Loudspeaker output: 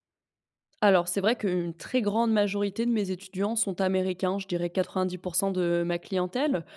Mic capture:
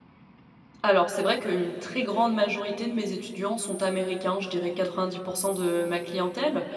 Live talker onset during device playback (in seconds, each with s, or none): none